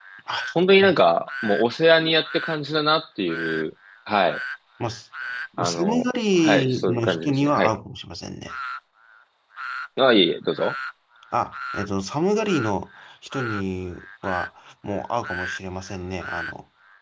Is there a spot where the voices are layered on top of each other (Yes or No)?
Yes